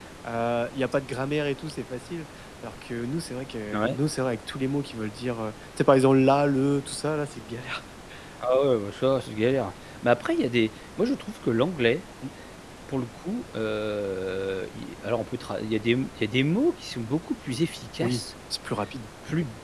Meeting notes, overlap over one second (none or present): none